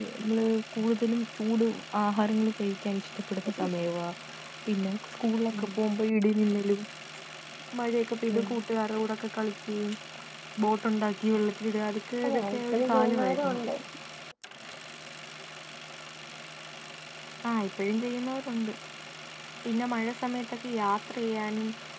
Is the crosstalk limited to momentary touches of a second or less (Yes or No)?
No